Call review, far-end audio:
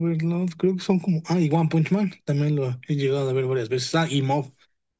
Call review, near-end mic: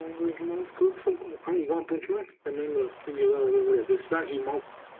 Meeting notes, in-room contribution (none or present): none